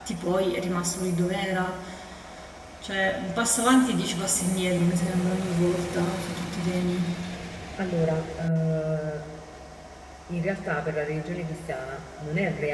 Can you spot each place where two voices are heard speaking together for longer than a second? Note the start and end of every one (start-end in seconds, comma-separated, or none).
none